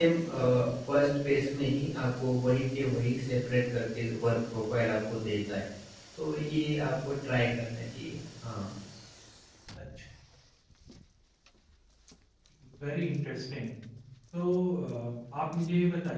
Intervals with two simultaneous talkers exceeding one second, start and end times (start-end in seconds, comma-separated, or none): none